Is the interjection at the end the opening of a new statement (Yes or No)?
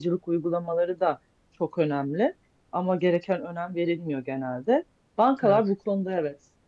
No